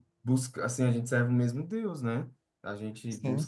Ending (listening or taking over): listening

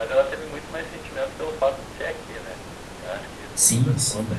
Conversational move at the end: taking over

